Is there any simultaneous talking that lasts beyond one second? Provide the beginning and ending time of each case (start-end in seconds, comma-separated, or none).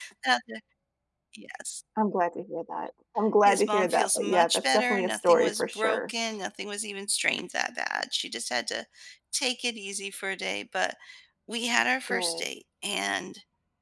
3.4-6.1